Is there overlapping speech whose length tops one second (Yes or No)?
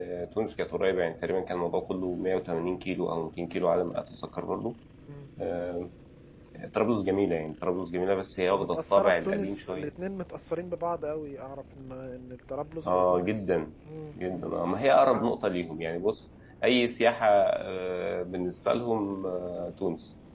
Yes